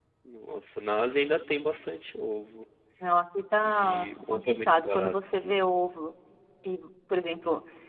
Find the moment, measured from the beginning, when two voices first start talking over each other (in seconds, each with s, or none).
3.6 s